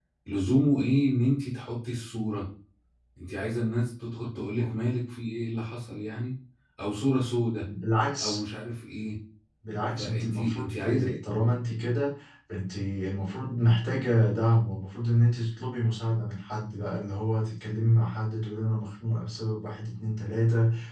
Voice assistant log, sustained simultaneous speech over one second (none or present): present